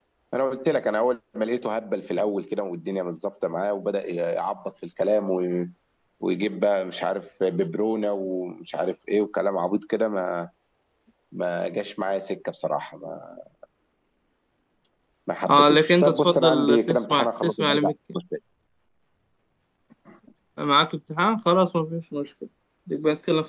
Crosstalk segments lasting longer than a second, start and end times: 15.5-17.9

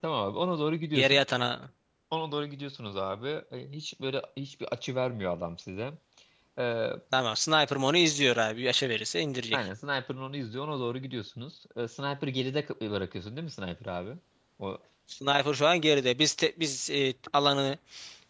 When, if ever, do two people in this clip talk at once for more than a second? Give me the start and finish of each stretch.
none

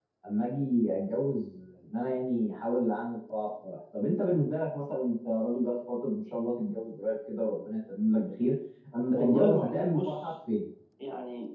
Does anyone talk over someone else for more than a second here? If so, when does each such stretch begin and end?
9.1-10.3

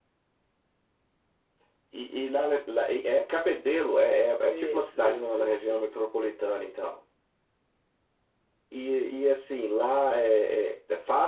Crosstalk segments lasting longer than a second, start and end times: 4.5-5.8

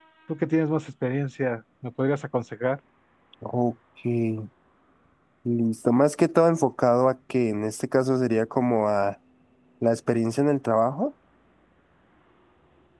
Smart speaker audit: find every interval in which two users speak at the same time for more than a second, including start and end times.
none

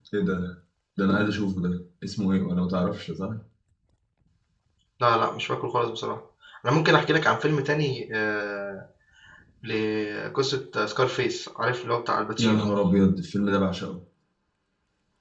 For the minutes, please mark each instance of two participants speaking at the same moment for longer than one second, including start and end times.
none

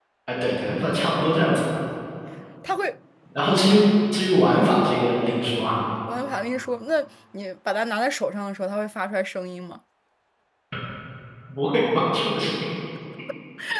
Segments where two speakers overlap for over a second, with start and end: none

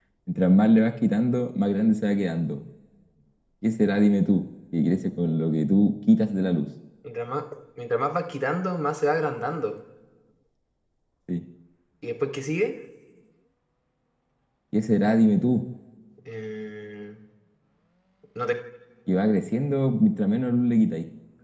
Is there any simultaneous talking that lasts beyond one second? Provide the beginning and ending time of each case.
none

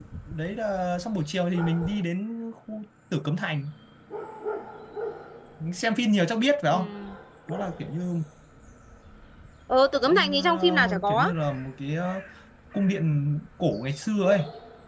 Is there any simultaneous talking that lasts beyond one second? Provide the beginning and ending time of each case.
10.0-11.3

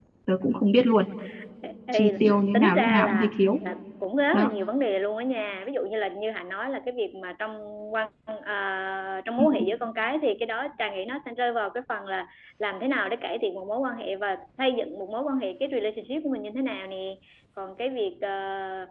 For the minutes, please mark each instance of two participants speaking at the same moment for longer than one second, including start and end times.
1.9-3.4

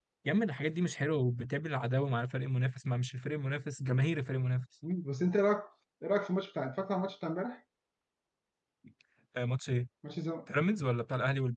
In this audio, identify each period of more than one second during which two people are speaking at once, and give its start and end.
none

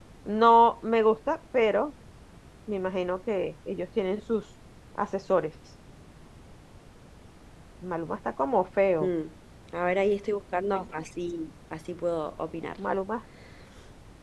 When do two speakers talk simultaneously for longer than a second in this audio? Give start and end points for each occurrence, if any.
none

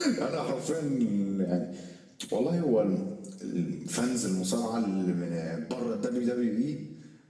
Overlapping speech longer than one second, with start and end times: none

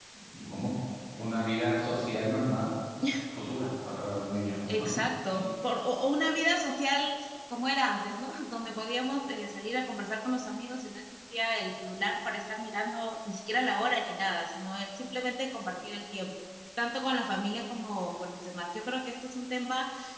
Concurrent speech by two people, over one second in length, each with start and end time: none

